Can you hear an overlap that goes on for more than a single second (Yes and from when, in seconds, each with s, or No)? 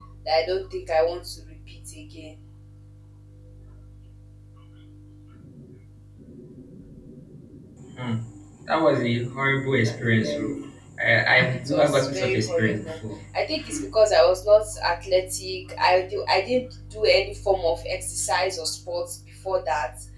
Yes, from 11.7 s